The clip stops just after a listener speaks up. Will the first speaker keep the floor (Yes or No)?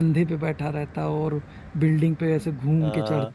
No